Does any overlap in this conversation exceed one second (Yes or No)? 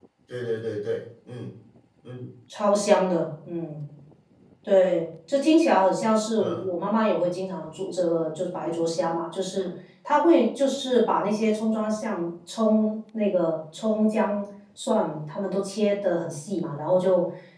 No